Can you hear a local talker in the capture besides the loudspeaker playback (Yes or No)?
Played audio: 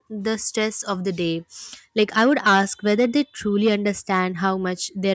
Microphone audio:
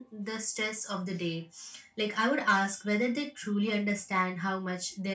No